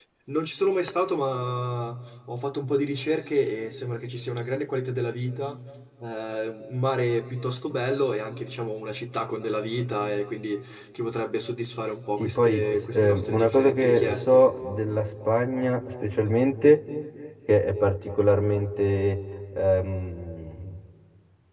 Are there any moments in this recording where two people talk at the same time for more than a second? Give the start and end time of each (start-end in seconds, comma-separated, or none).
12.2-14.5